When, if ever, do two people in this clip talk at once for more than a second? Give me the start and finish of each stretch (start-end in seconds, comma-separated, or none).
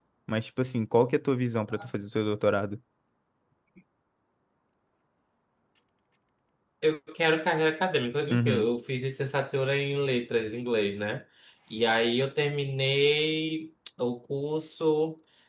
none